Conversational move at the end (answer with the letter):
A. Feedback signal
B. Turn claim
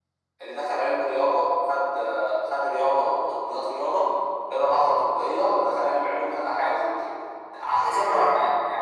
B